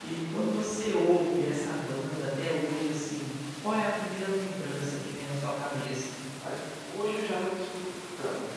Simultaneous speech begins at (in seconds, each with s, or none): none